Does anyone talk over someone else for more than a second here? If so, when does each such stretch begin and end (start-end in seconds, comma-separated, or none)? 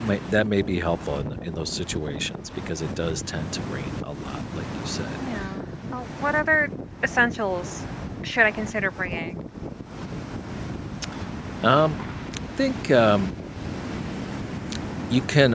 none